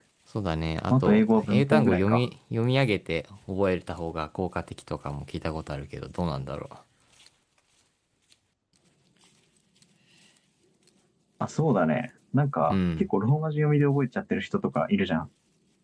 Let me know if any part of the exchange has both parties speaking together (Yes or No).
Yes